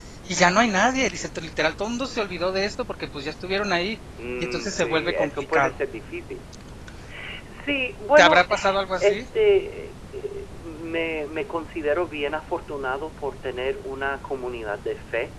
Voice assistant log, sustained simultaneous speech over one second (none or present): present